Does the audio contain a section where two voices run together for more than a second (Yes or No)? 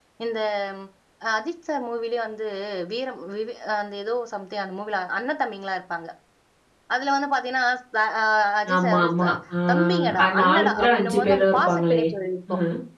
Yes